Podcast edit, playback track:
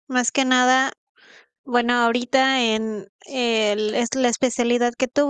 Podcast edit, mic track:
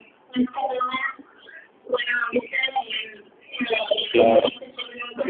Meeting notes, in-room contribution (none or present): present